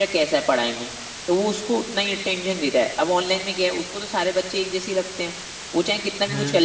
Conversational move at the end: listening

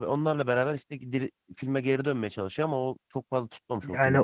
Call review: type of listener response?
taking over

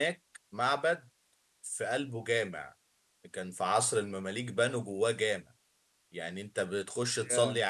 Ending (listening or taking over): listening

